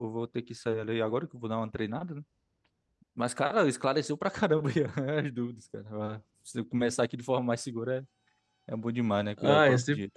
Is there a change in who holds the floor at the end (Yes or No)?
Yes